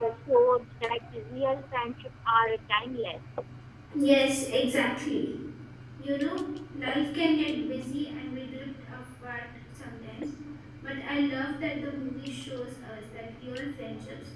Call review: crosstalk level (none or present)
none